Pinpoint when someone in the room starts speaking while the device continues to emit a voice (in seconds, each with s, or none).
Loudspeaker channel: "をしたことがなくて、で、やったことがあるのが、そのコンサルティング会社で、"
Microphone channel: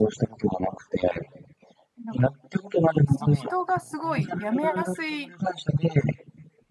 2.0 s